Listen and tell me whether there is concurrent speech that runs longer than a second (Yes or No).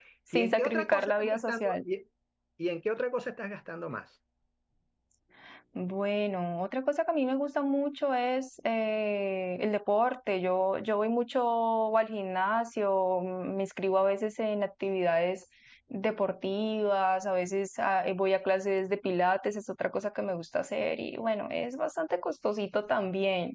Yes